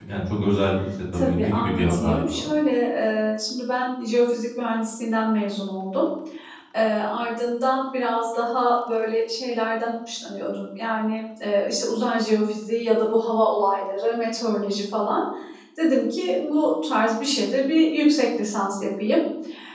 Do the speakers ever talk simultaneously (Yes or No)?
Yes